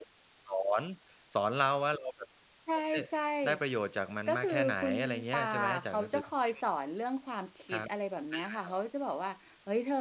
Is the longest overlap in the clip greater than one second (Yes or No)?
Yes